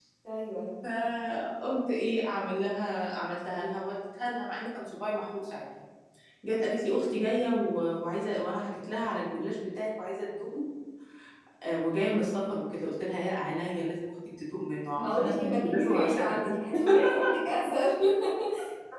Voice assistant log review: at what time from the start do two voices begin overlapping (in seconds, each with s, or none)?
15.0 s